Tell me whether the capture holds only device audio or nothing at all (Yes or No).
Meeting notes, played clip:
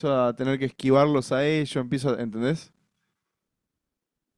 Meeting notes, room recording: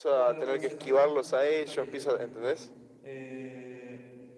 No